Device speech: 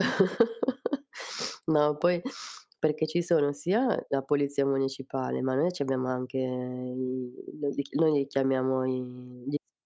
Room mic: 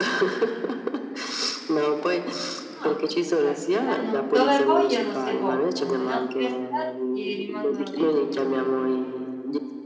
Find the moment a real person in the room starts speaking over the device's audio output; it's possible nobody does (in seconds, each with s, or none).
2.8 s